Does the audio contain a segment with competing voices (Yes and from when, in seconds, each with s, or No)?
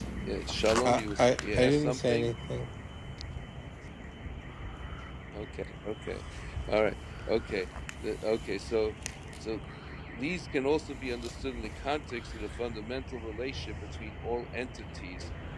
Yes, from 0.9 s